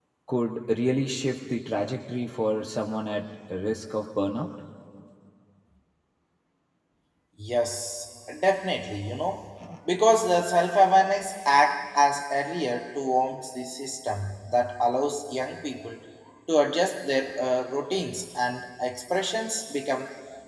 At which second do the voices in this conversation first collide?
none

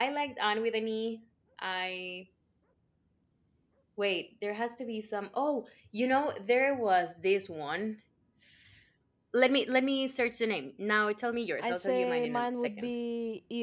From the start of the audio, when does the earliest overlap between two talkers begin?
11.6 s

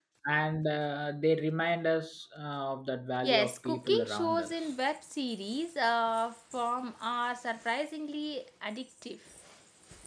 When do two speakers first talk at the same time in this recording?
3.2 s

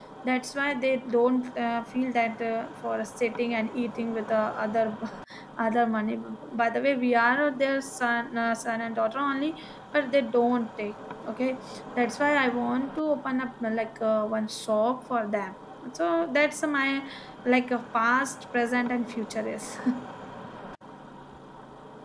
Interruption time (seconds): none

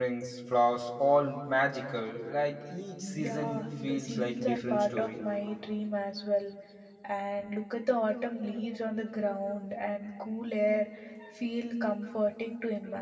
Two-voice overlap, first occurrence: 3.2 s

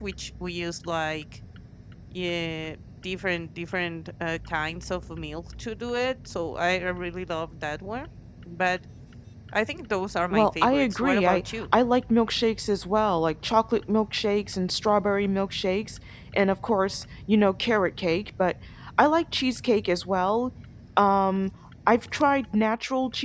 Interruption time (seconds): 10.3 s

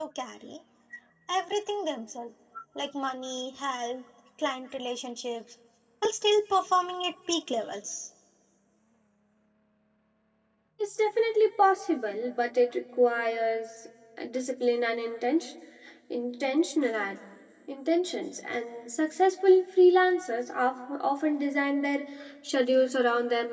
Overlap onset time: none

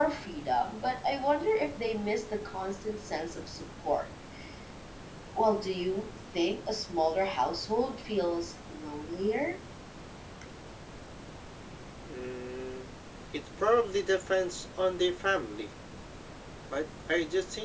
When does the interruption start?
none

